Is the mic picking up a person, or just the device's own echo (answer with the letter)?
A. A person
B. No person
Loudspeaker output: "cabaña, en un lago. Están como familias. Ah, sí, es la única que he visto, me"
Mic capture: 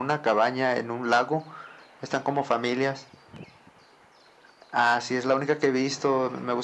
B